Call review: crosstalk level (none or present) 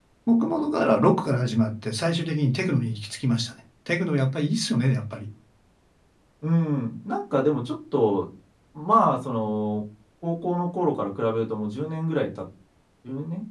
none